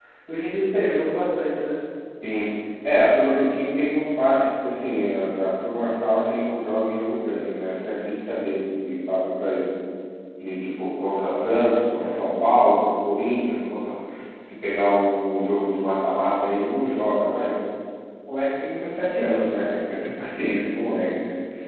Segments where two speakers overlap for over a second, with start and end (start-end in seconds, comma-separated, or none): none